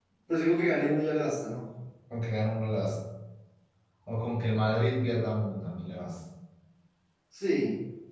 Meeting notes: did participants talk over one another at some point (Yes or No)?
No